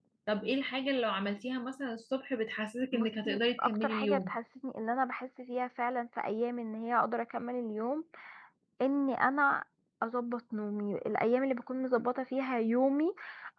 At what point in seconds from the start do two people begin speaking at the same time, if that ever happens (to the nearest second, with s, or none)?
3 s